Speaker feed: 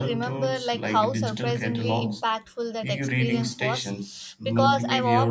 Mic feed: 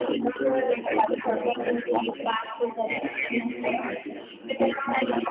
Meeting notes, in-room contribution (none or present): present